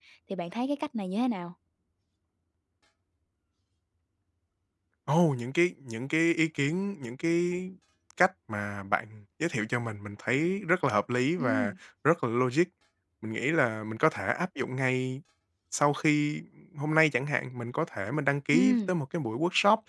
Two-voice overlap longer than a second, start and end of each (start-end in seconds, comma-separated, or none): none